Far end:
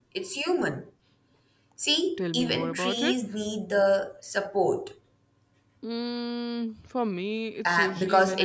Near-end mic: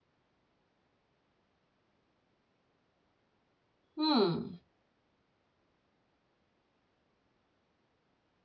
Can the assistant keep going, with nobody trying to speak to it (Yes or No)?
No